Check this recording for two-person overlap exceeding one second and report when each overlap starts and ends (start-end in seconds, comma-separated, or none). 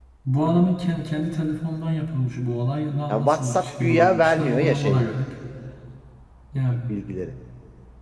3.1-5.1